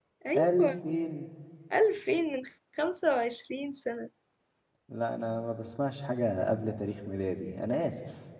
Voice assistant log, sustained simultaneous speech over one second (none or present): none